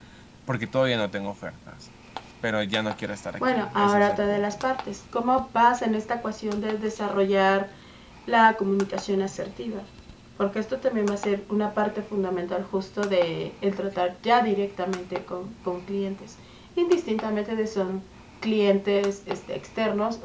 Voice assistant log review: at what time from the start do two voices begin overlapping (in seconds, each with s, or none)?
3.4 s